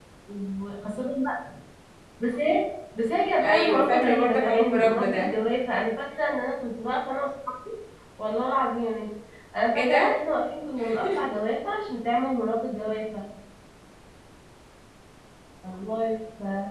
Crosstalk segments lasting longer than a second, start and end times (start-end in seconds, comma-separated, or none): 3.4-5.3